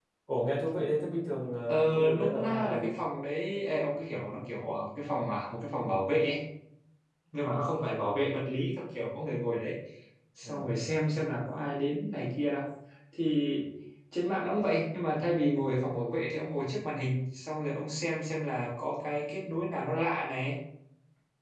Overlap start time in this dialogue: 2 s

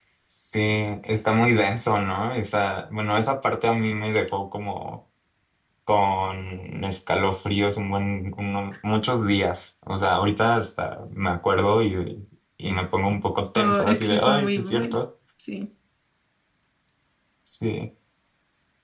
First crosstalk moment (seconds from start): 14 s

